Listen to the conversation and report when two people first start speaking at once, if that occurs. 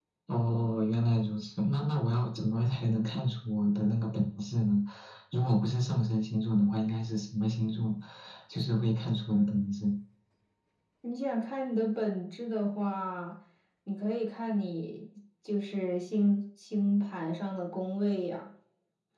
none

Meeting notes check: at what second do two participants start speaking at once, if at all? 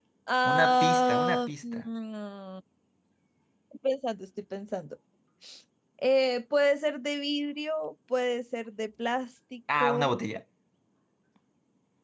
0.5 s

